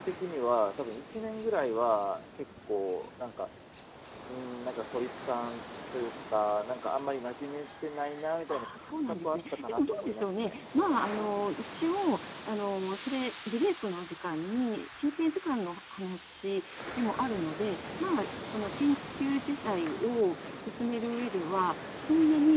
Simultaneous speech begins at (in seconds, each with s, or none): 8.5 s